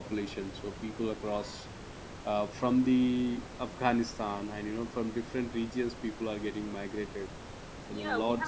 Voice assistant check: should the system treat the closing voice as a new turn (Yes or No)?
Yes